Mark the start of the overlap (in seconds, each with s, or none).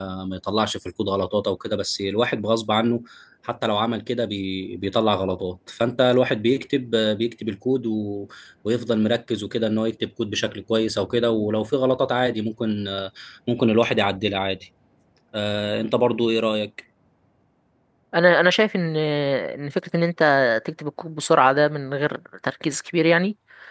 none